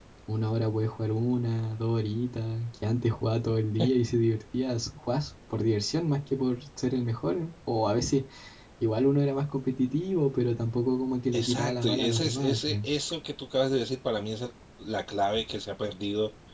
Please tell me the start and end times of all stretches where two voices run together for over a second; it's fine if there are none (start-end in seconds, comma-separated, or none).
11.3-12.9